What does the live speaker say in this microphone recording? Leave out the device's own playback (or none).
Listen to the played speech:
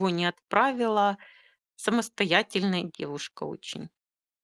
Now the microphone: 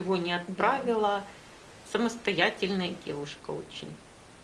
Да, м.